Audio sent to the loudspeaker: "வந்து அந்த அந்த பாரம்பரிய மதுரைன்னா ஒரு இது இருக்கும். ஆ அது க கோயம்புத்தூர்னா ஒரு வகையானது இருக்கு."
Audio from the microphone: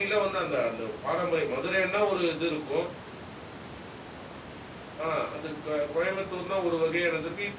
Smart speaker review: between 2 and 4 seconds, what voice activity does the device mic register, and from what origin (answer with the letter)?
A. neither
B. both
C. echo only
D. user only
C